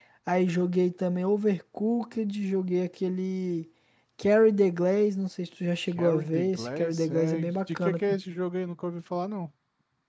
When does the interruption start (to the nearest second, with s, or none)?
6 s